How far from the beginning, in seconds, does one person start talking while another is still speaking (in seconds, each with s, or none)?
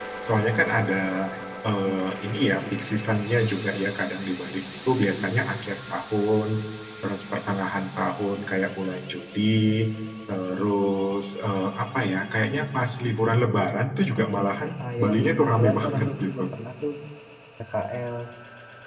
14.8 s